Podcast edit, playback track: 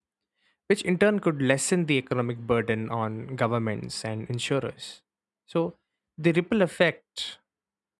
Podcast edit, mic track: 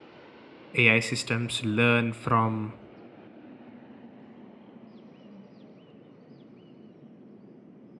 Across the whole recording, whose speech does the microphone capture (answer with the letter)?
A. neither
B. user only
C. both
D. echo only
B